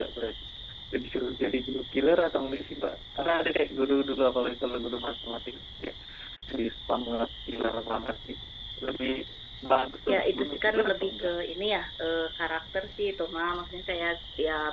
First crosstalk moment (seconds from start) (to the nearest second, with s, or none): 10 s